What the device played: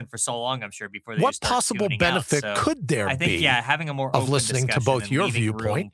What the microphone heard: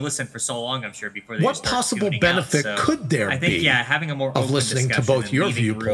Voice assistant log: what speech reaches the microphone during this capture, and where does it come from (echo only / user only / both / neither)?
echo only